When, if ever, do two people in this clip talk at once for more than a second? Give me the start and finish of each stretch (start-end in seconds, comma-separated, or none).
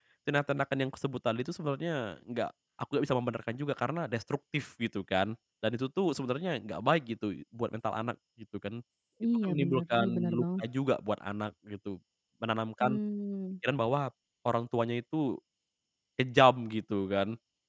9.4-10.6